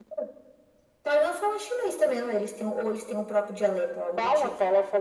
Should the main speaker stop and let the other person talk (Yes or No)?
Yes